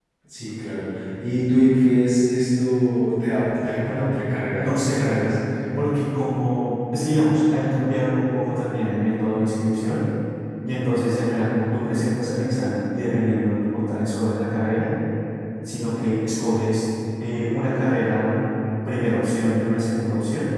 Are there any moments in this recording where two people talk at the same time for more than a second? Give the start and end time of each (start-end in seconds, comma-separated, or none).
3.9-5.3